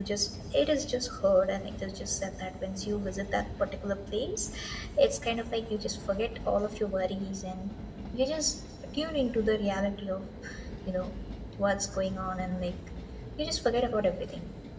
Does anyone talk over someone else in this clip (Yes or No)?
No